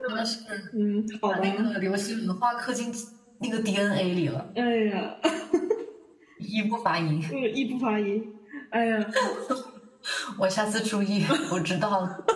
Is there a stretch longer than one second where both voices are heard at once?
No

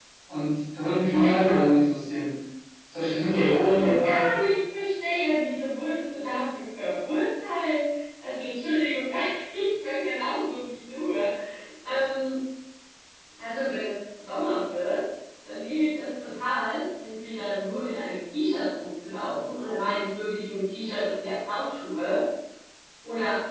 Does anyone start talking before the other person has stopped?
Yes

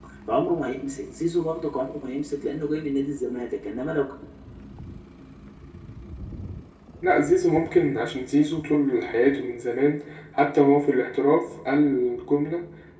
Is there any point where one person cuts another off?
No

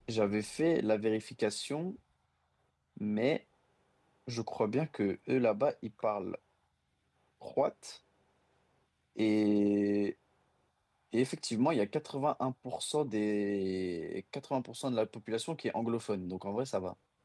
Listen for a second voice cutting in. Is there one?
No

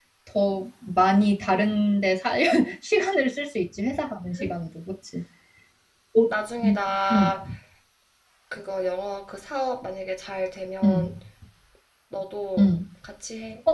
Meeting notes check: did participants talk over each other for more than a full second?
No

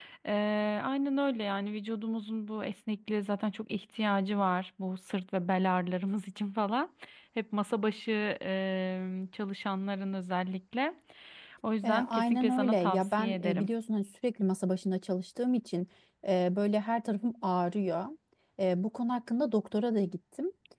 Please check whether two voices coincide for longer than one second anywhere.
Yes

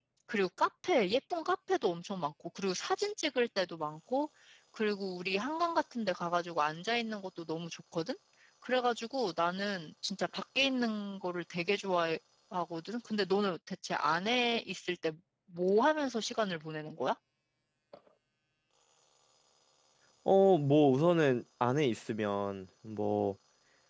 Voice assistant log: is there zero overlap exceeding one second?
Yes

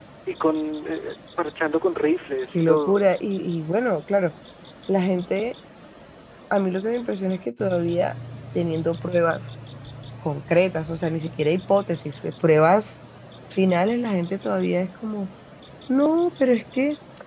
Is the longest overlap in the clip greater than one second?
No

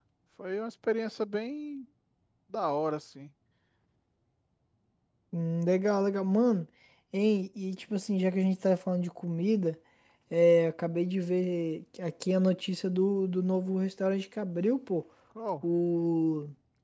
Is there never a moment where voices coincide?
Yes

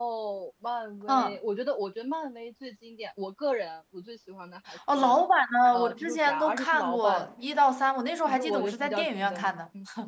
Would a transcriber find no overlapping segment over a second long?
No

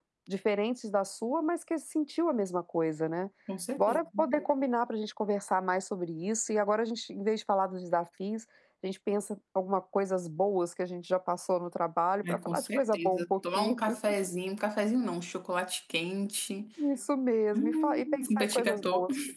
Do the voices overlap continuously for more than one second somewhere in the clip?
Yes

